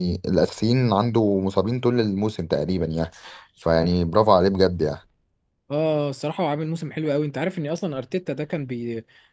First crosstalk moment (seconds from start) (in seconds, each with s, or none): none